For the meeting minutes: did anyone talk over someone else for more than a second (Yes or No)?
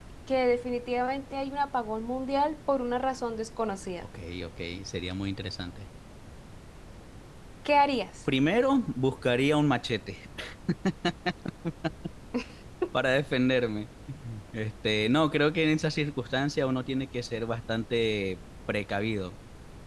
No